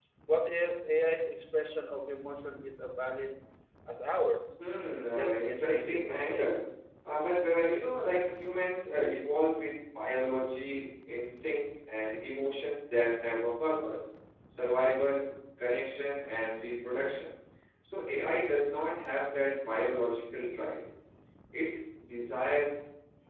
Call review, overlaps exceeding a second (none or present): present